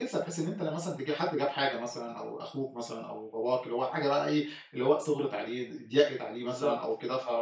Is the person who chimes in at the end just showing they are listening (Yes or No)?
Yes